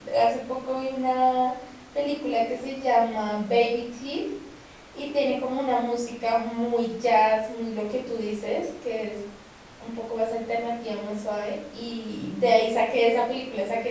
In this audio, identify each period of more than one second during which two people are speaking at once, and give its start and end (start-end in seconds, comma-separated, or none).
none